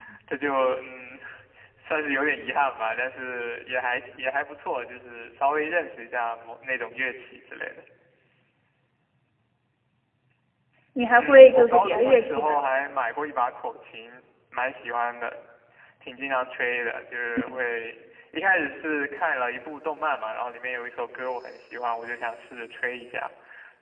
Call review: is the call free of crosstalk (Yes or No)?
No